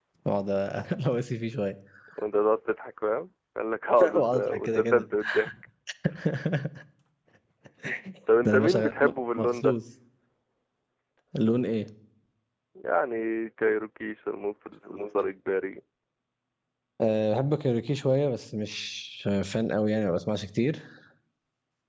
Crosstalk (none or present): present